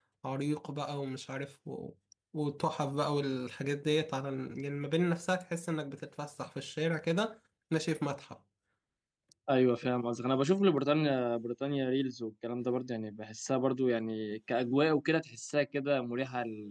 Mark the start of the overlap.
none

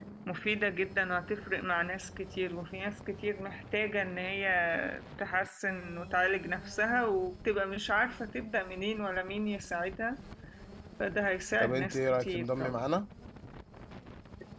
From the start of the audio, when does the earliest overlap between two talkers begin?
11.6 s

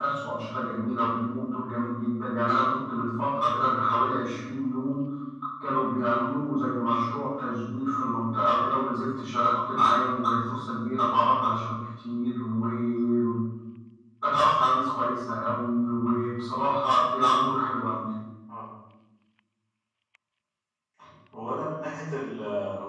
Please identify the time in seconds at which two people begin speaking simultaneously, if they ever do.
none

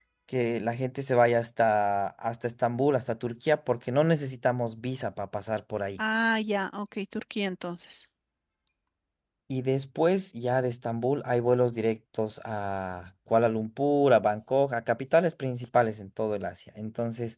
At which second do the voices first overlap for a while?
none

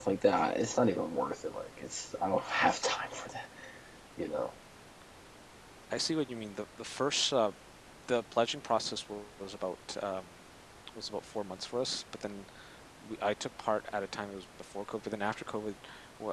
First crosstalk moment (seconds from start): none

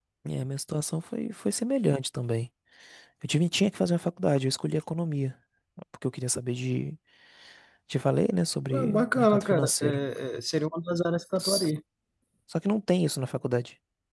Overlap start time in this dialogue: 8.7 s

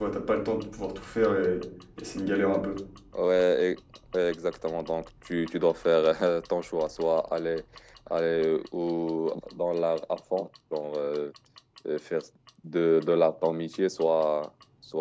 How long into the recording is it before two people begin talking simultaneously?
none

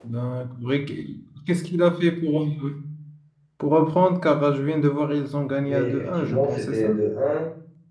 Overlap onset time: 5.7 s

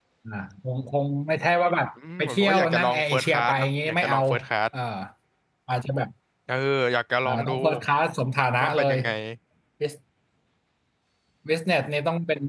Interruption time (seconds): 2.2 s

